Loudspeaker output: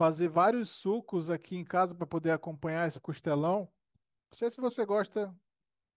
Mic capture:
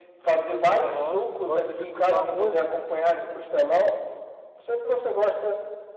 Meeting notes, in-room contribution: present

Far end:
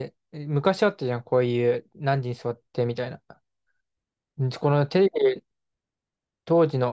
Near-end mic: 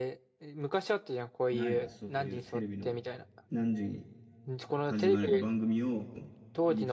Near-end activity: present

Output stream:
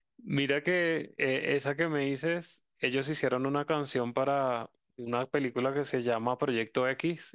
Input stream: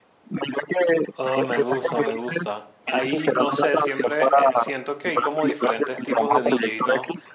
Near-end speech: present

